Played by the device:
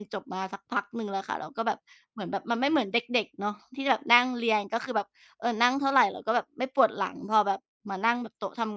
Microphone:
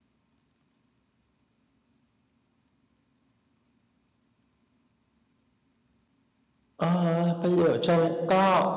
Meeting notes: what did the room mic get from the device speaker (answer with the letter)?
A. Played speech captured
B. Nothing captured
B